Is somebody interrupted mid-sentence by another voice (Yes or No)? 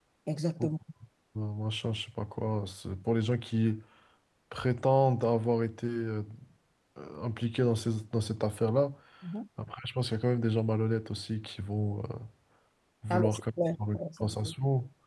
Yes